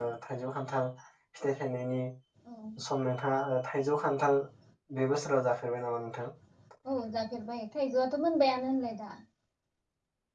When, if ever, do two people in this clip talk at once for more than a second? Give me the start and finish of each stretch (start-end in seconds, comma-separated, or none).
none